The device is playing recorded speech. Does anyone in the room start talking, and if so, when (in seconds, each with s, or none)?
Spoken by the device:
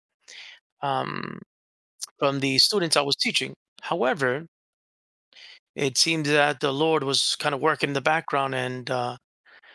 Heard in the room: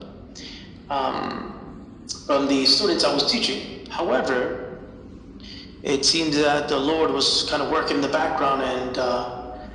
none